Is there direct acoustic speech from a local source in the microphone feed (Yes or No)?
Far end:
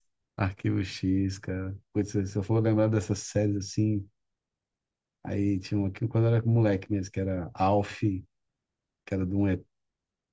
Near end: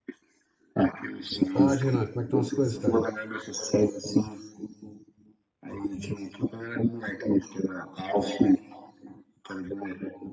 Yes